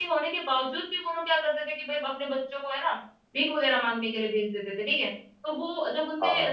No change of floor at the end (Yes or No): Yes